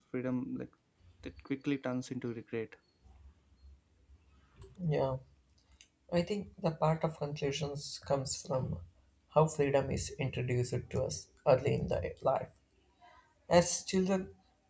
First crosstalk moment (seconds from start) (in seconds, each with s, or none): none